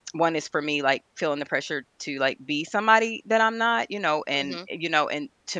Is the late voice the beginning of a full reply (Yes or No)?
No